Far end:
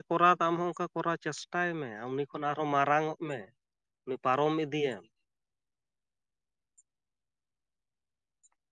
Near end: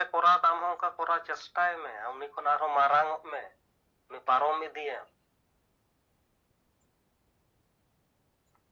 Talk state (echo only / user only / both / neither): echo only